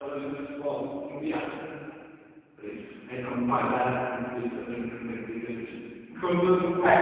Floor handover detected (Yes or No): Yes